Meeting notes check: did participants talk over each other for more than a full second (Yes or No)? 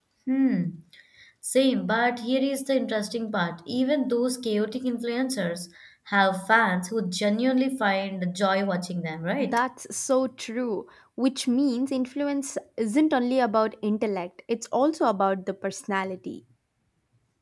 No